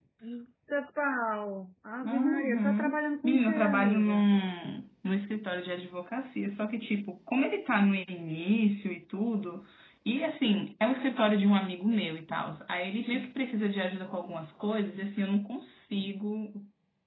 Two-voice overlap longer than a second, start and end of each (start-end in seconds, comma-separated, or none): 2.0-4.3